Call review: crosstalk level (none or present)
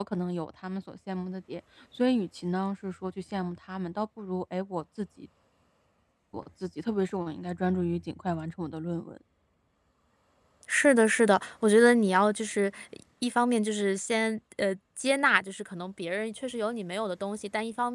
none